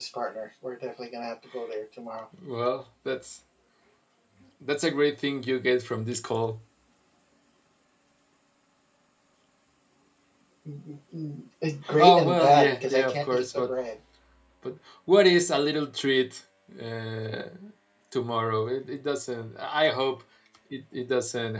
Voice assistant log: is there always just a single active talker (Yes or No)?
No